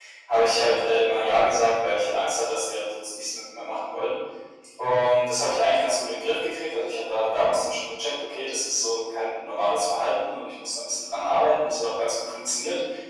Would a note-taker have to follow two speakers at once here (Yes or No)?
No